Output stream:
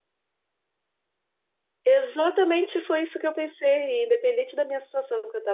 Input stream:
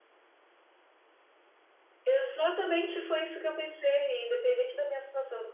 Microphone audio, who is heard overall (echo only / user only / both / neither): echo only